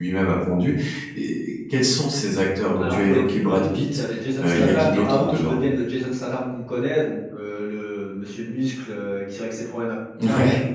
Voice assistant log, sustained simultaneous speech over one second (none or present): present